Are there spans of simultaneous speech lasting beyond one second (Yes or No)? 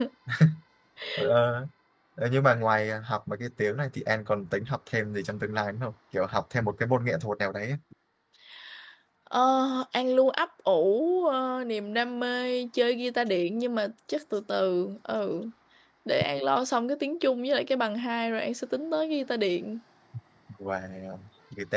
No